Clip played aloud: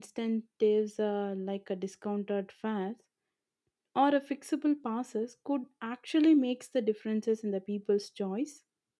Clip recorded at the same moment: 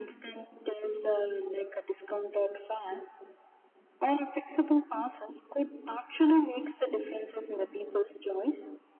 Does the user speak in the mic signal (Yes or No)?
No